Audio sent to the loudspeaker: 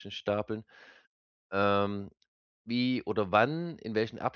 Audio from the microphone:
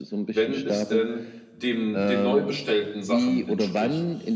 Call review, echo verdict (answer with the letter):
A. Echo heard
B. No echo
A